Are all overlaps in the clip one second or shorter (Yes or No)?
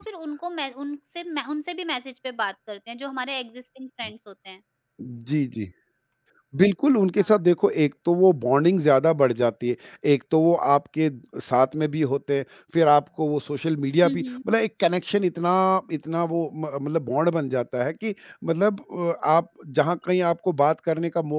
Yes